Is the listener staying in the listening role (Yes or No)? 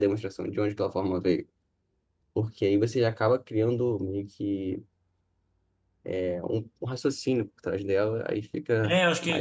No